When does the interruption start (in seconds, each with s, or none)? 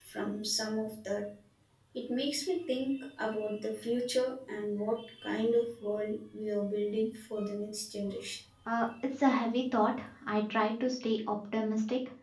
none